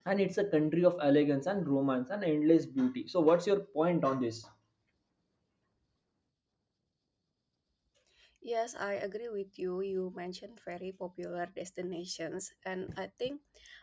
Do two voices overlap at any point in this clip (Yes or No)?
No